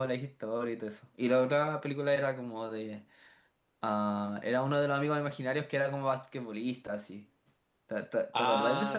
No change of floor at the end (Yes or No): No